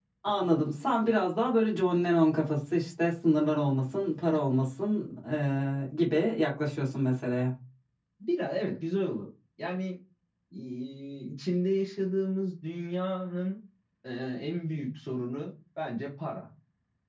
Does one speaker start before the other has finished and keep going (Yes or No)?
No